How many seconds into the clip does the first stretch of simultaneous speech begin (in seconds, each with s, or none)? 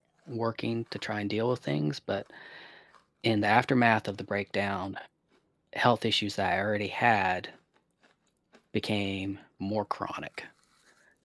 none